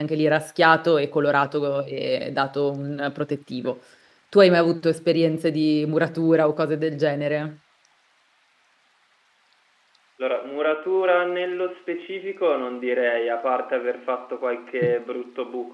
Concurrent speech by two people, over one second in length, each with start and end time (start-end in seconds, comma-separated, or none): none